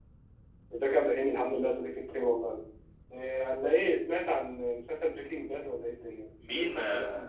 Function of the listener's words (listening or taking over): taking over